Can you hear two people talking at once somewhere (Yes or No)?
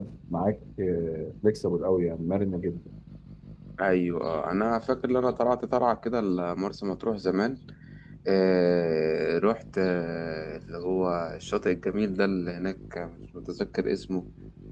No